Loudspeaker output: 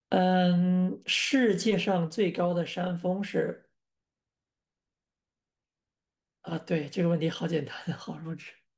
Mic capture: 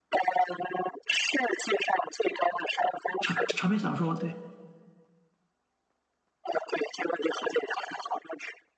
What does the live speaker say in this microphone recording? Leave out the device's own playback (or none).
长长篇小说，对，